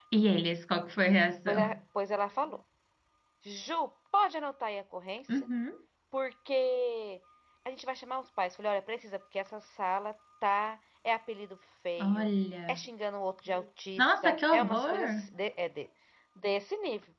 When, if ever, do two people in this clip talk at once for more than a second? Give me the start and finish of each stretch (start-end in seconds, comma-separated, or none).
14.0-15.3